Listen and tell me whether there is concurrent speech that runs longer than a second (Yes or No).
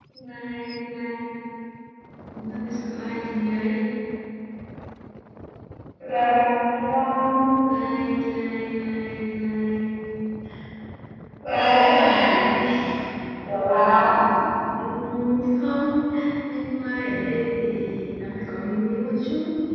No